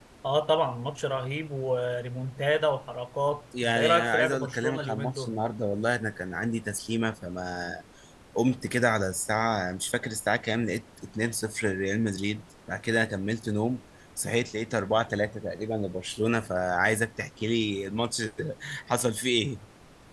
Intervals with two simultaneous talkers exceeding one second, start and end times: 3.6-5.4

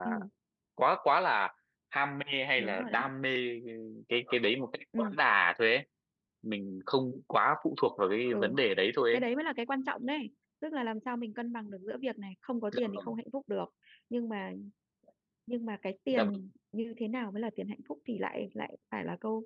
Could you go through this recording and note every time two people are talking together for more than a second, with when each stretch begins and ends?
none

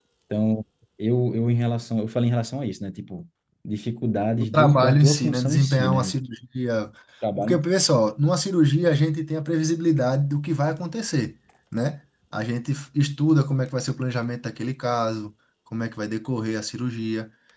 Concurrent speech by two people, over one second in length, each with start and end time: 4.4-6.1

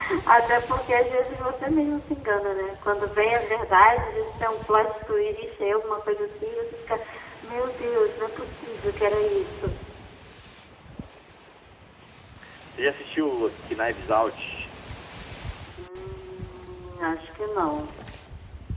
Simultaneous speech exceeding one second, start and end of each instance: none

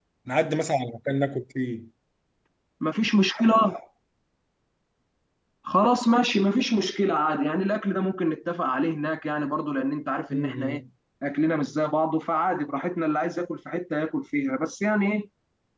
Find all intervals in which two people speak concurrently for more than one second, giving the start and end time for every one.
none

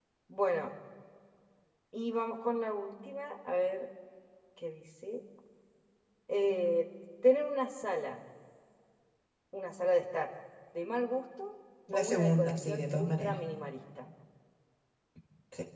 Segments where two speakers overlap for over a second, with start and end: 11.9-13.3

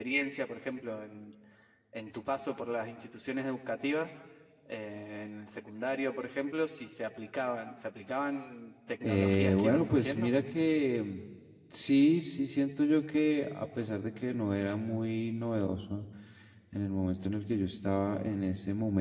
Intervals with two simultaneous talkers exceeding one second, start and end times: 9.0-10.3

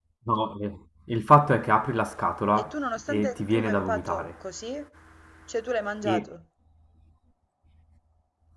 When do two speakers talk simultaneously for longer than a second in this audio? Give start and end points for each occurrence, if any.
2.5-4.3

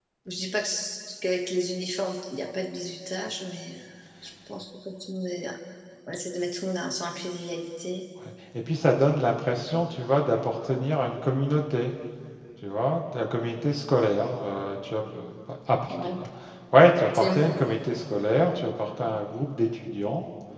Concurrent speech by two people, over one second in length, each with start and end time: none

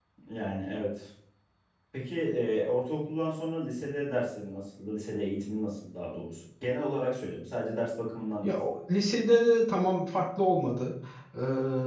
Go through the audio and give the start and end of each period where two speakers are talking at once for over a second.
none

